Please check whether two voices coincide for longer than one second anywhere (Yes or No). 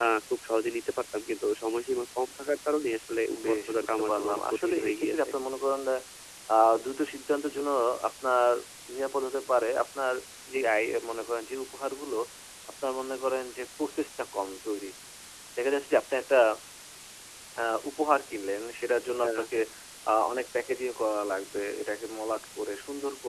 Yes